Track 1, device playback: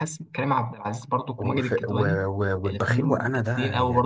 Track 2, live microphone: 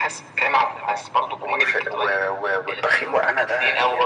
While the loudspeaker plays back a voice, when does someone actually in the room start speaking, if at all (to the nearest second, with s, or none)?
none